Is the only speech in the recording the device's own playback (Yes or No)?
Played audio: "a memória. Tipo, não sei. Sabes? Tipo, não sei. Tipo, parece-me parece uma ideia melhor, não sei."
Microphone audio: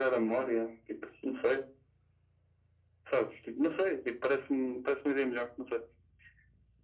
Yes